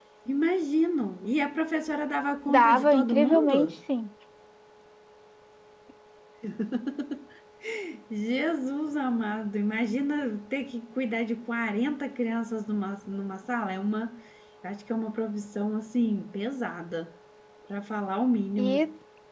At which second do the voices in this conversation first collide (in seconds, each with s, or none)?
2.5 s